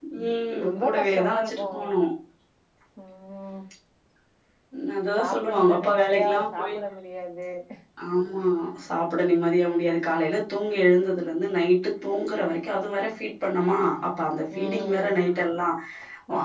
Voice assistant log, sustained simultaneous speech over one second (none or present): present